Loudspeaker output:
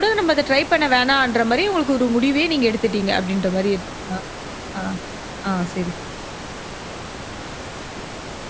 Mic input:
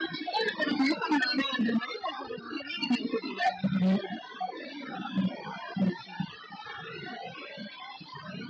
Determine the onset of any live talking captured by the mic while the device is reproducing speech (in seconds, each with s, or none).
none